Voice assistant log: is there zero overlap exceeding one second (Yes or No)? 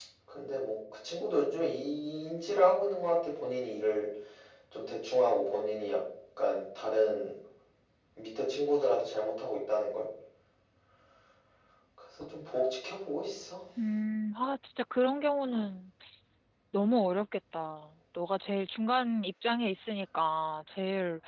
Yes